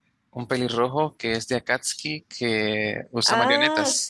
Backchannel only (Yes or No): No